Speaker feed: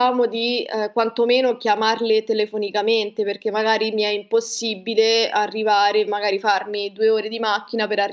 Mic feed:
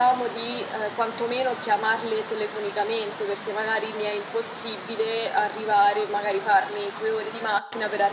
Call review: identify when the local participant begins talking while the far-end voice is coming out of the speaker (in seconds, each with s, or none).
none